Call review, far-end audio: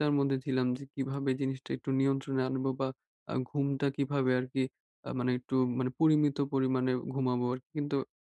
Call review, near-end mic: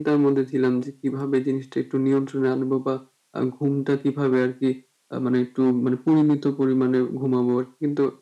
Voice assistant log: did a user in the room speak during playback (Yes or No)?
No